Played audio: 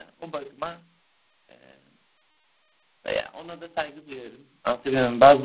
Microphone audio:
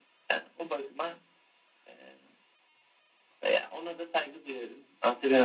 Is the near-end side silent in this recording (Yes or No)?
Yes